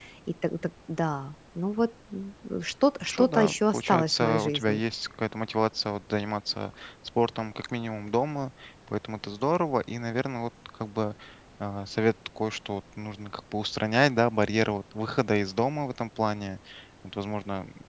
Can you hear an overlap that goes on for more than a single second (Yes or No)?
Yes